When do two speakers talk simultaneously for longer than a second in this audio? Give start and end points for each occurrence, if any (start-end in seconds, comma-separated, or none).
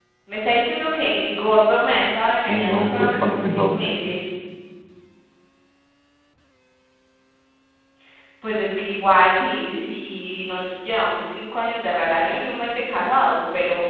2.1-3.9